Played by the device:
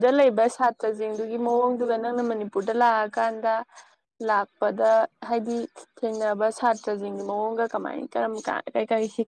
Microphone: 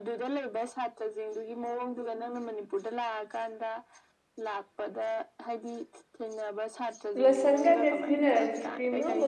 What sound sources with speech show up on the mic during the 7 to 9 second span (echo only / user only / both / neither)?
both